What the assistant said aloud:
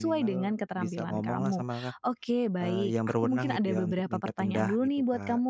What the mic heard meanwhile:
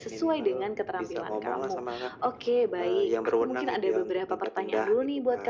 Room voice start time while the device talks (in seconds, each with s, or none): none